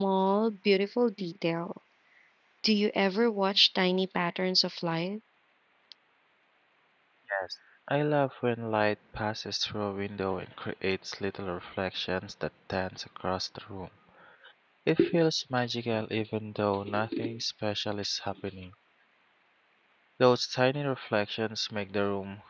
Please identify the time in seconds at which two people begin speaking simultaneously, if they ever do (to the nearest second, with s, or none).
none